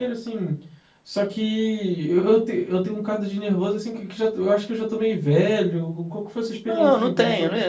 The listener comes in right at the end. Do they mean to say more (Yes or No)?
Yes